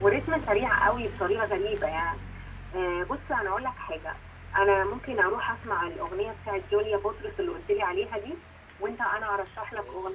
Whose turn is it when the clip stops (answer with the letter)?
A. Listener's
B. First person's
B